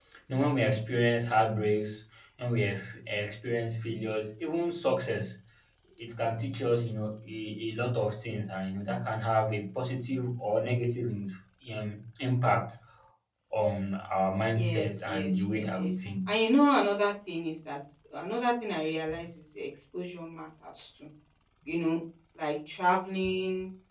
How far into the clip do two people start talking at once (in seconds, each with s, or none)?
14.6 s